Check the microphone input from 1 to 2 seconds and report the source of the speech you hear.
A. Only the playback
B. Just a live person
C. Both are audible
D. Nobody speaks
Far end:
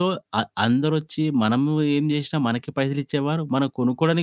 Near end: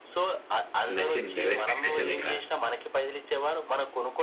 C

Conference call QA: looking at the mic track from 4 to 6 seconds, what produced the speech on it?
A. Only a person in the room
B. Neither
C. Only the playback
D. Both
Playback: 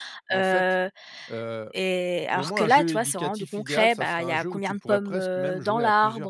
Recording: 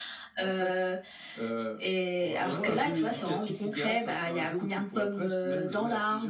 C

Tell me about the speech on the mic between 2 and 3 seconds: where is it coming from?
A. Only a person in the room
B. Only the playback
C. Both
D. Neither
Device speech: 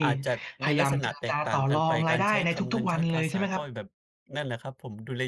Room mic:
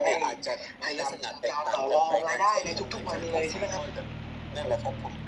B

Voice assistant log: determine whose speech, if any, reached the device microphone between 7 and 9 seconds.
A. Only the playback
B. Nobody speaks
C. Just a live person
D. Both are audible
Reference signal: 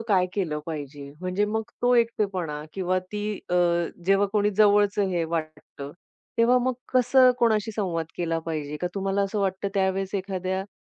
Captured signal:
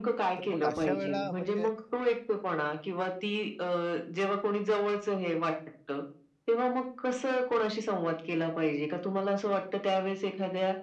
A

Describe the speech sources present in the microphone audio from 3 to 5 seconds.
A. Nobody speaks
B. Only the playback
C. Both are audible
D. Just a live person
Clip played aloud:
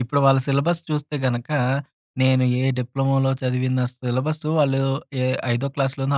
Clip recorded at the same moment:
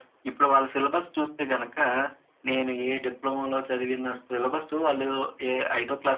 B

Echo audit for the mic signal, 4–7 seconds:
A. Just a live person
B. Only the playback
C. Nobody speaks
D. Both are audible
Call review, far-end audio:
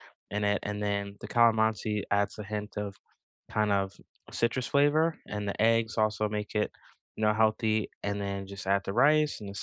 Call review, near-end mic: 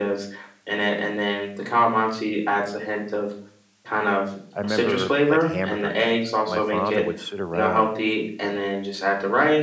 D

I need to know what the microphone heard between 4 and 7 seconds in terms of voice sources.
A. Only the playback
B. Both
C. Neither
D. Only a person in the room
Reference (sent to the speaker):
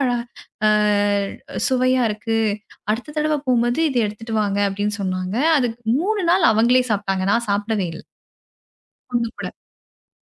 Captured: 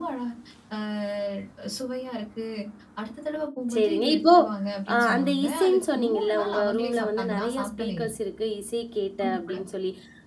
B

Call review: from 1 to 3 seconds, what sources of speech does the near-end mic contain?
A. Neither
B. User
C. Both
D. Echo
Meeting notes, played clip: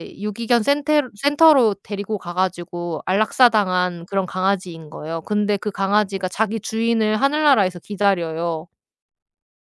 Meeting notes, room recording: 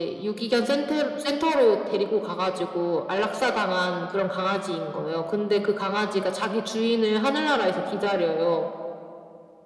D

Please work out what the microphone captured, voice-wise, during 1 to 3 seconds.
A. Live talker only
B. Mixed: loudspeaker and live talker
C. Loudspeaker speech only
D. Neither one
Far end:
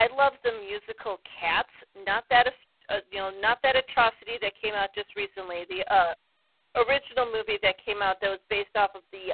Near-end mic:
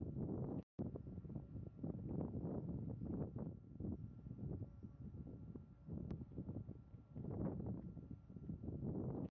D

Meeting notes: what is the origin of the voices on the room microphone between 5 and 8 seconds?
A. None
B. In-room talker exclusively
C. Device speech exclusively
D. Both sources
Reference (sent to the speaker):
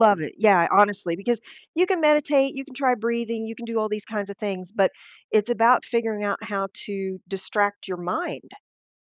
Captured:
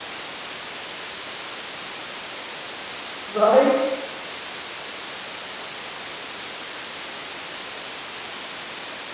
A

